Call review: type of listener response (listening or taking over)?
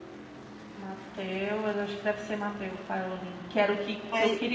listening